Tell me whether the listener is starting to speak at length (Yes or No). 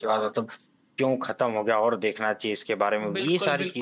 Yes